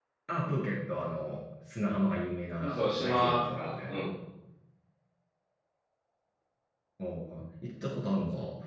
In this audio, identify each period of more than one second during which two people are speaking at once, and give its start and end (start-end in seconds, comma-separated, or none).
2.6-4.0